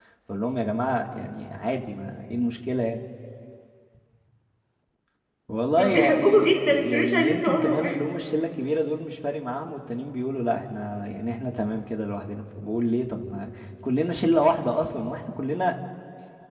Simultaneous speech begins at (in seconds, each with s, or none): 5.8 s